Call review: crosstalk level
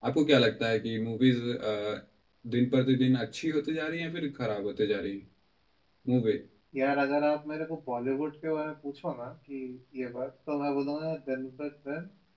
none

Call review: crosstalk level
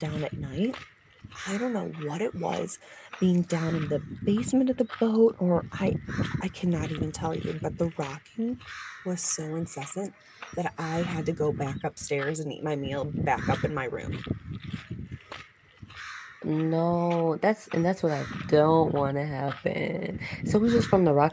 none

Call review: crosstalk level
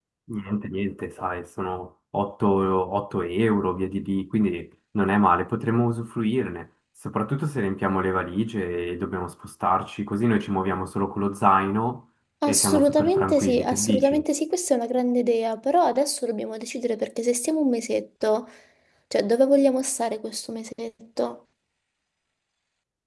present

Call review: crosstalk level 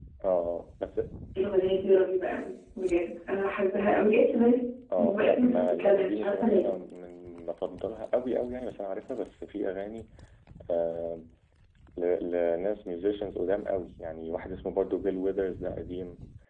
present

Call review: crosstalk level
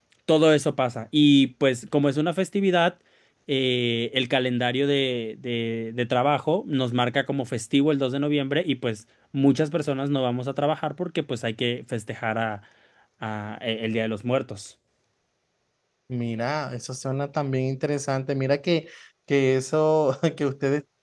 none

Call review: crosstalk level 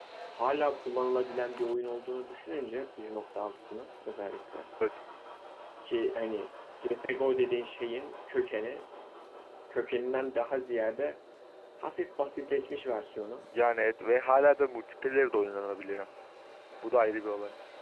none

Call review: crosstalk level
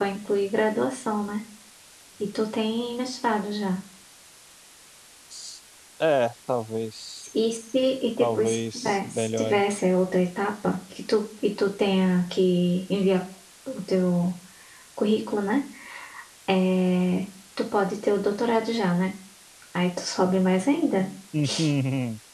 present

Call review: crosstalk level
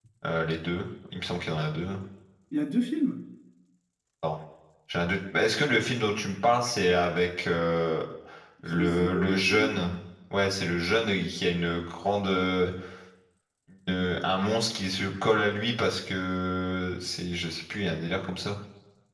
present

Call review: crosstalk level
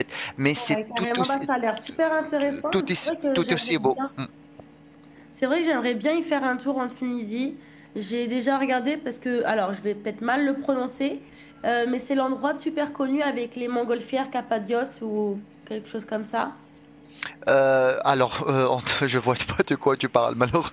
present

